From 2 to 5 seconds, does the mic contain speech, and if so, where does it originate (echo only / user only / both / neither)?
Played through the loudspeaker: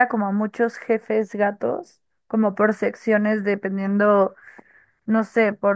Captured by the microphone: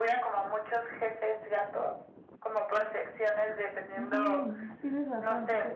both